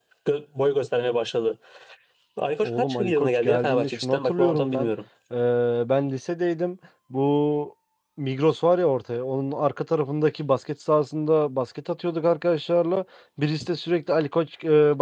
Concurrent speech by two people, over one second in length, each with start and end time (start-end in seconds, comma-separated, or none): 2.6-4.9